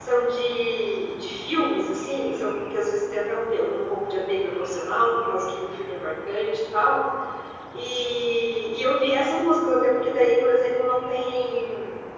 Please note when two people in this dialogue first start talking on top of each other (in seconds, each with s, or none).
none